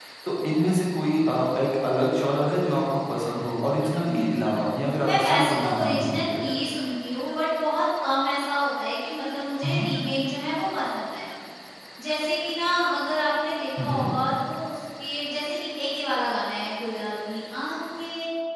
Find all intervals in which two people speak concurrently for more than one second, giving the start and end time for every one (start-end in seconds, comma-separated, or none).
5.0-6.5